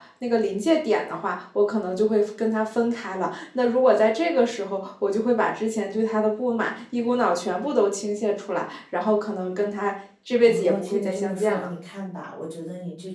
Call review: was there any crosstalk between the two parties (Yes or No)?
Yes